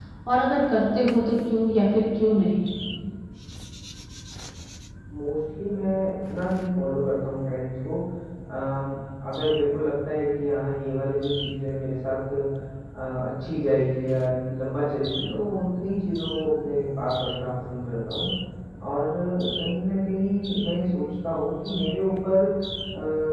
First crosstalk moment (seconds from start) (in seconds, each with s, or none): none